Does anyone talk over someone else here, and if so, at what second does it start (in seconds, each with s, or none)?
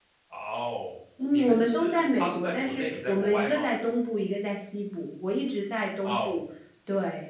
1.3 s